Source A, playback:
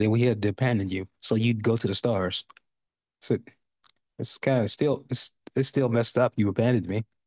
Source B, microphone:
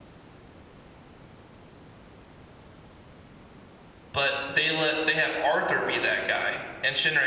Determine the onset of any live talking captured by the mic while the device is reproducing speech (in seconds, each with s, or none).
4.1 s